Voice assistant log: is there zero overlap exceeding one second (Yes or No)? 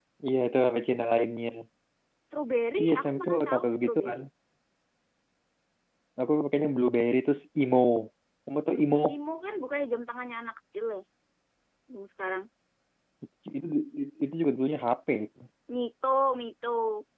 No